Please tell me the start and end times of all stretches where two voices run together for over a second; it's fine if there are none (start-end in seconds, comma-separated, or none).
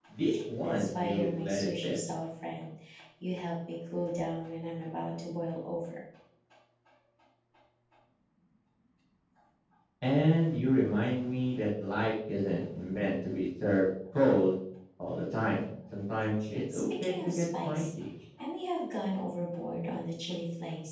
0.6-1.9, 16.7-18.0